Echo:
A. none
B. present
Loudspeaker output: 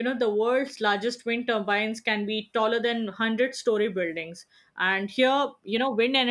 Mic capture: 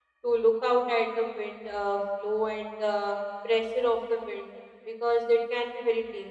A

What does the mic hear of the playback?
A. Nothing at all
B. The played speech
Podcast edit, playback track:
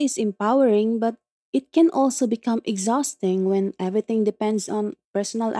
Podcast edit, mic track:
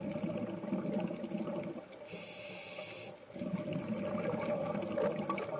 A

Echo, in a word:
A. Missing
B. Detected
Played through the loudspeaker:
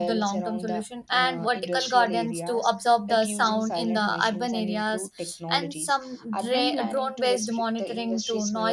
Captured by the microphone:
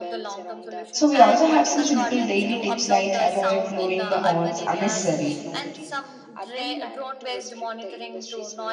B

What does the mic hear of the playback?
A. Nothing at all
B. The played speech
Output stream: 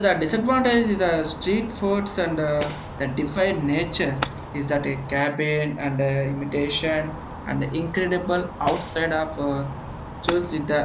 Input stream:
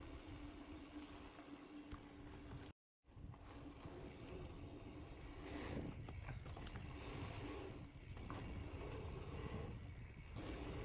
A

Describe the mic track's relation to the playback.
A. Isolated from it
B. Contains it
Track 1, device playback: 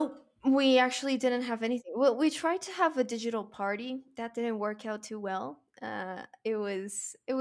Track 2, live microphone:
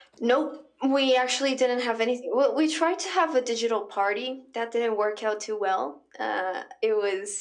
B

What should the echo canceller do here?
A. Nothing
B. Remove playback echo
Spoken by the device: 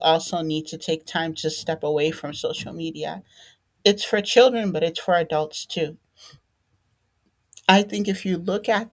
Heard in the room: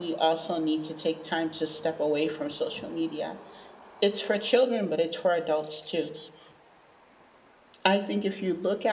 B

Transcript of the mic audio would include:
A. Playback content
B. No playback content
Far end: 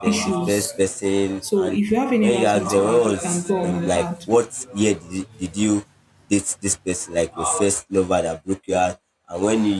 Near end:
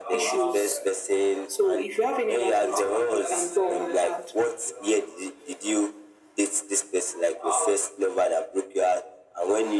A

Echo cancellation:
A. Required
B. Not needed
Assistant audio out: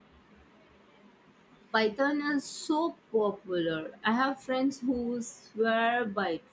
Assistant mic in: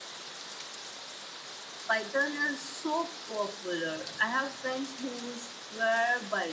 A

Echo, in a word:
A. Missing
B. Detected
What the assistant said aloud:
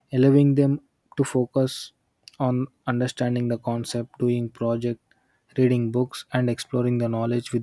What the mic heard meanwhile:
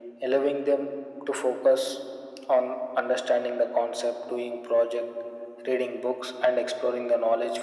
B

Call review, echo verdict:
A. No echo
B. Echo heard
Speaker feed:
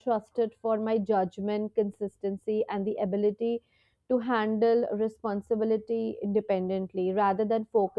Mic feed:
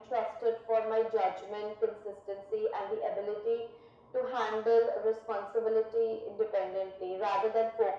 B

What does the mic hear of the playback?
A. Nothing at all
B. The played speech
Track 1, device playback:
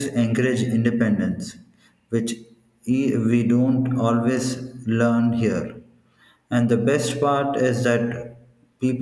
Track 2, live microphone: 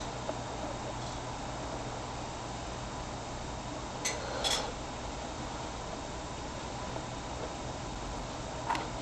A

